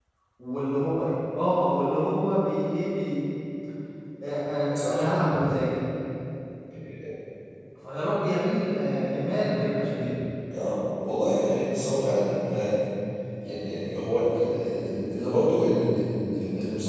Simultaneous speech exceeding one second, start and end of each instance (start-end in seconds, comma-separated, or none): none